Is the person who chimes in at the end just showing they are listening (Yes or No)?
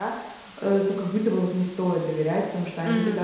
Yes